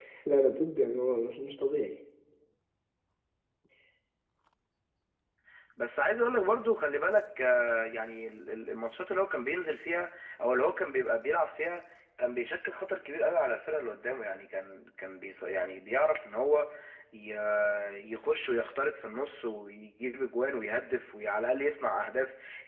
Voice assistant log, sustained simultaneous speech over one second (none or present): none